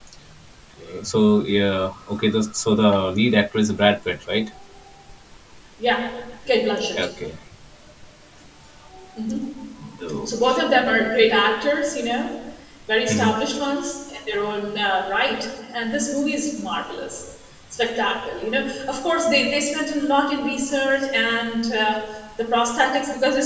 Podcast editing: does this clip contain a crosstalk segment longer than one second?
No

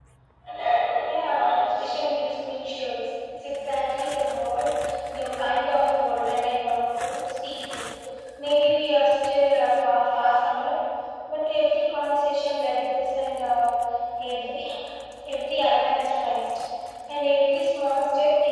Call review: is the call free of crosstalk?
No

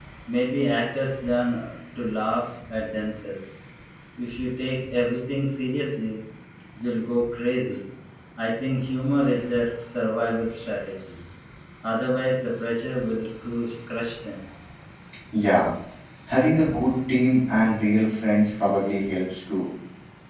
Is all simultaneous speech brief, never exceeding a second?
Yes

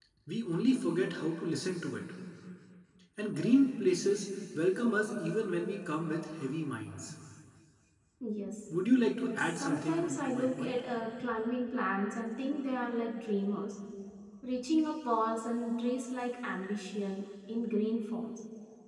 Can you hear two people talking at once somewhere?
Yes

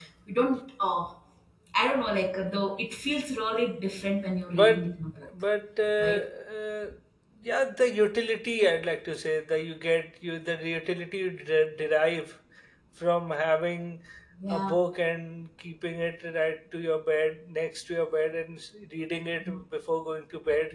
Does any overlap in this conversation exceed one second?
No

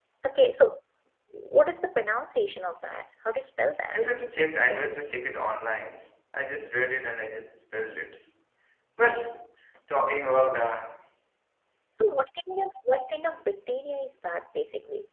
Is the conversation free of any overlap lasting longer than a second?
Yes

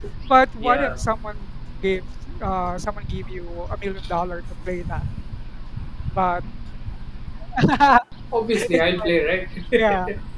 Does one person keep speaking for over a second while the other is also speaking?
No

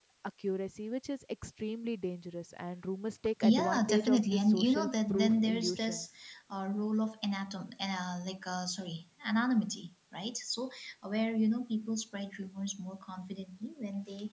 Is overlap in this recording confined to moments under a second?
No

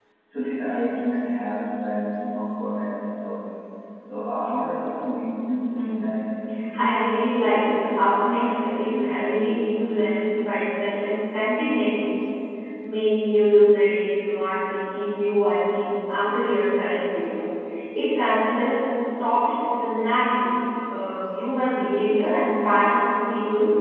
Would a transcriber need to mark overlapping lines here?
Yes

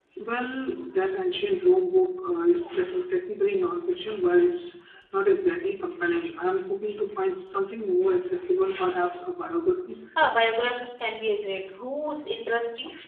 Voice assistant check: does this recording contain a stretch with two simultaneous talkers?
No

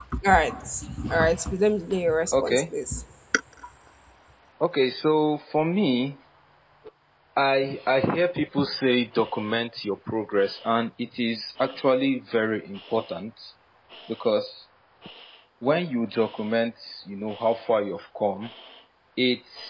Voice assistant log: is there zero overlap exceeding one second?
Yes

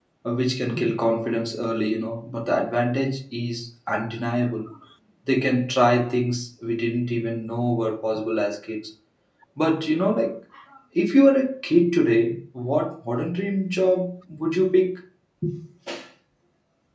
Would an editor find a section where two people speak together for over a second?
No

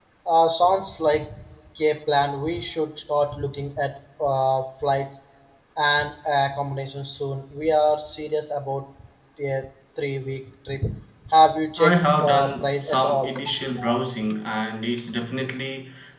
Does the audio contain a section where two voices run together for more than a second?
Yes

